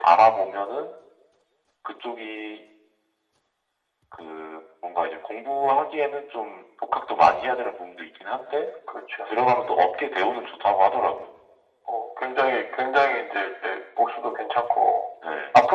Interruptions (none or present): none